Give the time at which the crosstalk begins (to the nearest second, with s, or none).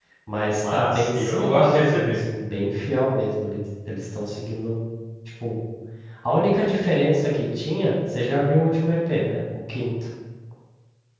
1 s